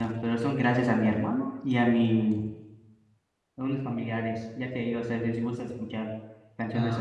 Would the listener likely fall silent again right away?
No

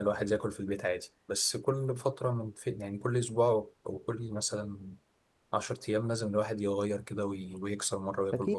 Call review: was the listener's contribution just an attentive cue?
No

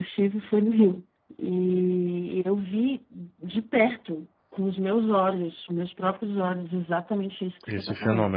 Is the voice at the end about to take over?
No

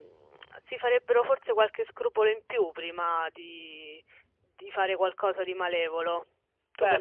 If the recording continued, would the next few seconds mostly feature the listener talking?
Yes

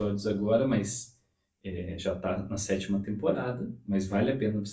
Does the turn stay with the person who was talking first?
Yes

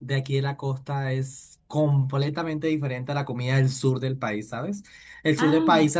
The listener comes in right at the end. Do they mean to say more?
No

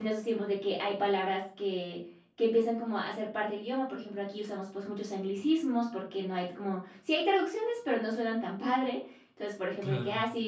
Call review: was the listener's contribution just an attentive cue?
Yes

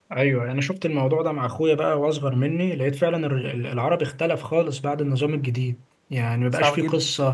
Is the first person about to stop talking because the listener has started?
No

